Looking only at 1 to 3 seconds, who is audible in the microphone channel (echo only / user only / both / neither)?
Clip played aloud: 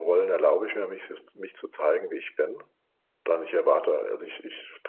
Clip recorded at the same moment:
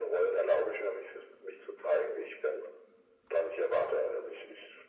echo only